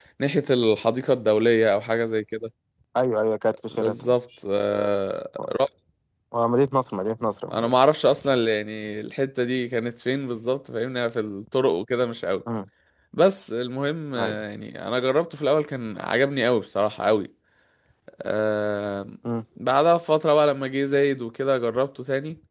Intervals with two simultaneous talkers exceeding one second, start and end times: none

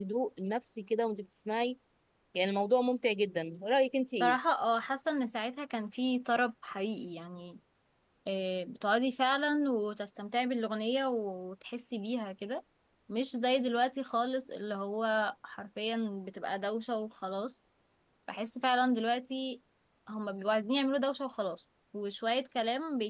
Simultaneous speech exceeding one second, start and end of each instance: none

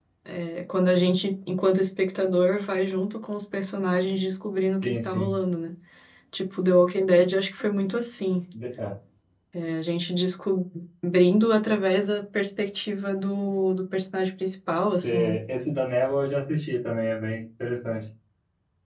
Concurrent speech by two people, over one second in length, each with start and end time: none

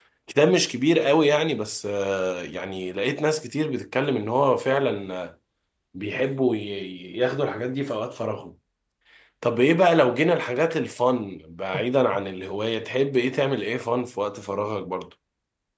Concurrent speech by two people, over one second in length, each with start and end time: none

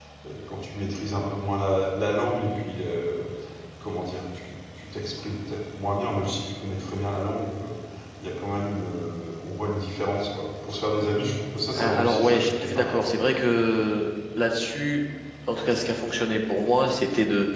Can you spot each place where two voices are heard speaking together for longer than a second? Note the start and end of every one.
11.8-13.0

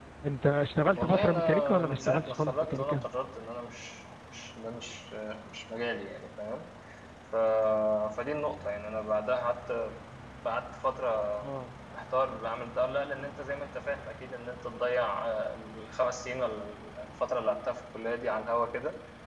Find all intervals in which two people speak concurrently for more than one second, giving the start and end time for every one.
1.0-3.0

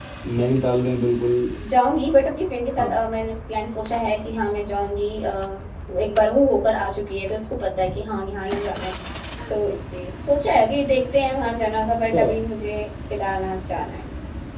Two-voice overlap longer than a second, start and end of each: none

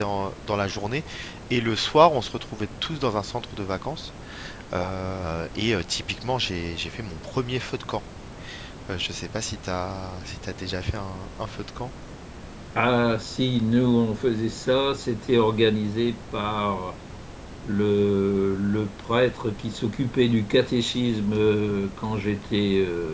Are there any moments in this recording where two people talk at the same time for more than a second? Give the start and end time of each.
none

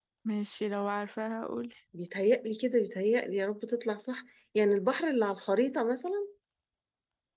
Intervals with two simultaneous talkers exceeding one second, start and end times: none

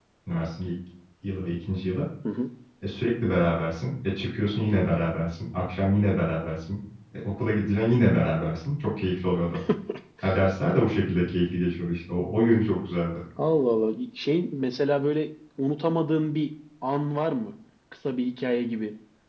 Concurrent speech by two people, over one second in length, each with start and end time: none

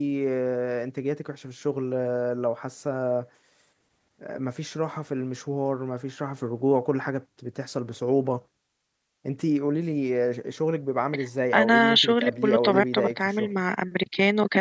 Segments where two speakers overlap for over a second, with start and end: 11.5-13.5

